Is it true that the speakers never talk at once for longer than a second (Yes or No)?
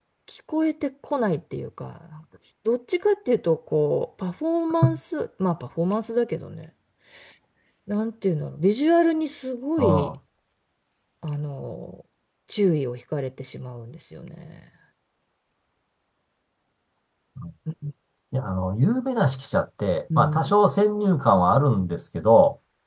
Yes